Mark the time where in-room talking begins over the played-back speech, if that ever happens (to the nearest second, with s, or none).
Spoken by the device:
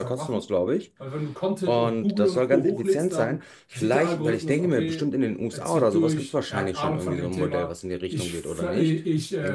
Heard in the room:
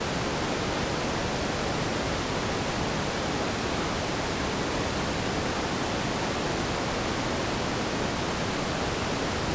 none